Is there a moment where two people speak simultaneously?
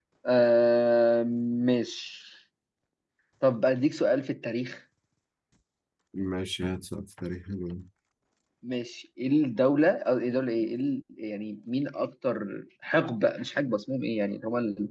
No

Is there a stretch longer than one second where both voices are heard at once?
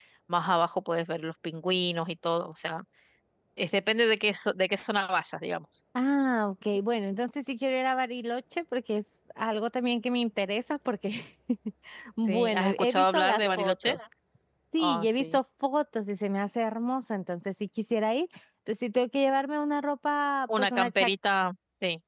Yes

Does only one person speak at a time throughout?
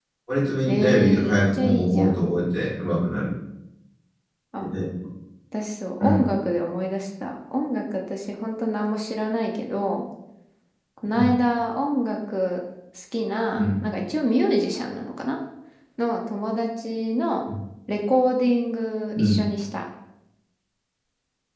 No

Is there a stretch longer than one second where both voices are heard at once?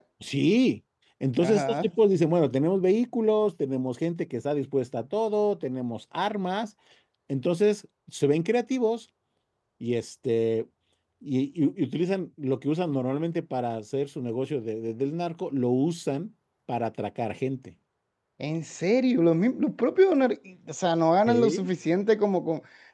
No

